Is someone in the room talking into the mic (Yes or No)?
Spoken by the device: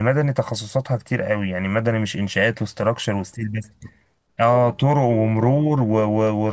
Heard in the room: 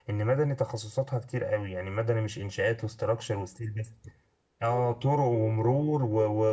No